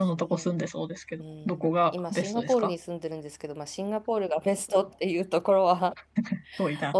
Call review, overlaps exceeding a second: present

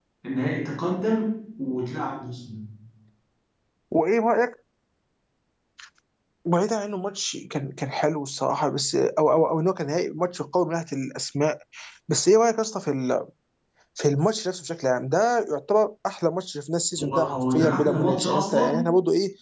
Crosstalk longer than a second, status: present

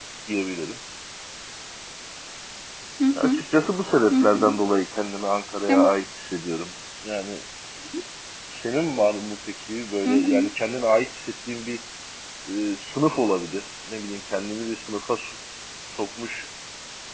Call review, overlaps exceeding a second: none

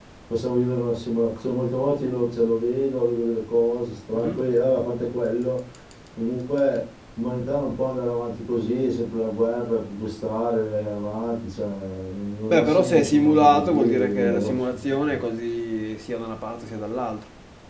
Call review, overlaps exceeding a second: present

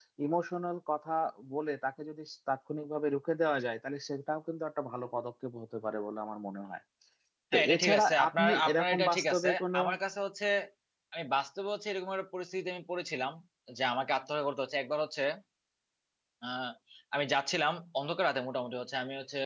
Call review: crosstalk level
present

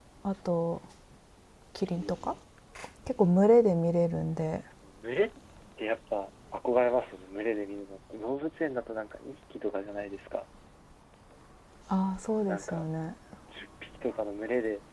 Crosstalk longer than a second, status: none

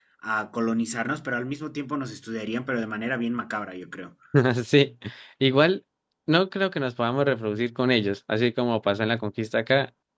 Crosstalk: none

